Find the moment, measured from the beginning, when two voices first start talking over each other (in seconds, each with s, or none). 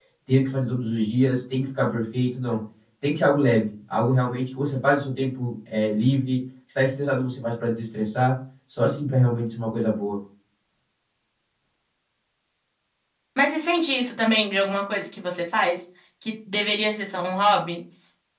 none